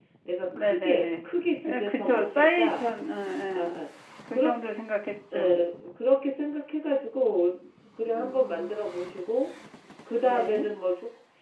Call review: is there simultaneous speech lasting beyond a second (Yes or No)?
Yes